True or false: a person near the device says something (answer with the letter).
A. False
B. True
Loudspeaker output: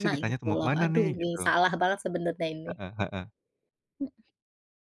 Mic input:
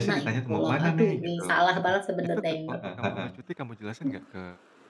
B